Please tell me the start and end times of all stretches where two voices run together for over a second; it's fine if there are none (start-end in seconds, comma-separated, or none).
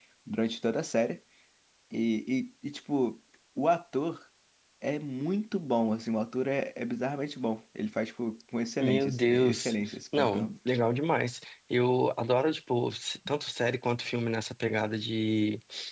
8.8-10.5